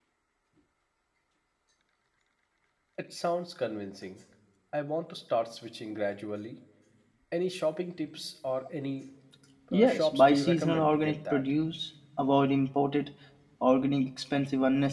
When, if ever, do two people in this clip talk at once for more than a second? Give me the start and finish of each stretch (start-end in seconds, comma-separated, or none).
9.7-11.4